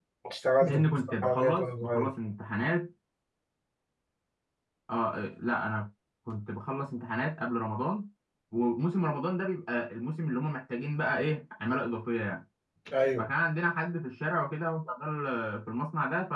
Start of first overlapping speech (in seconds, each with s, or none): 0.6 s